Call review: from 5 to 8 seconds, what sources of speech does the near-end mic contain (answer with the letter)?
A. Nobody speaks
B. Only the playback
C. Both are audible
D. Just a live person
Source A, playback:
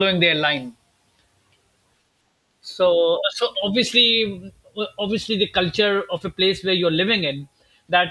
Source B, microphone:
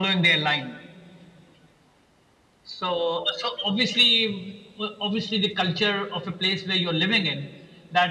B